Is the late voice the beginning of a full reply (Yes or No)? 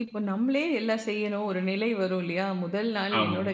No